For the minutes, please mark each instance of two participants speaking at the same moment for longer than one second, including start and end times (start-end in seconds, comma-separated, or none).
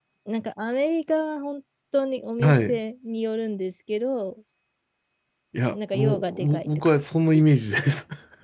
5.7-6.9